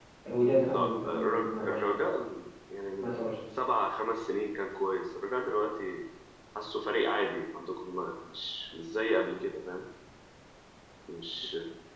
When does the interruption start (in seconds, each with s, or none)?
0.5 s